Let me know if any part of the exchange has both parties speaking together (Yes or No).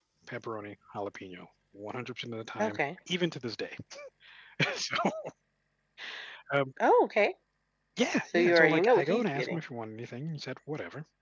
Yes